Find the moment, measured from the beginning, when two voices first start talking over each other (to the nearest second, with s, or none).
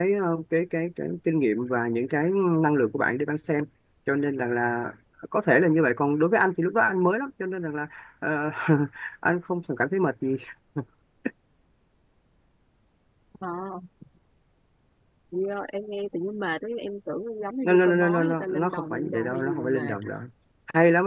18 s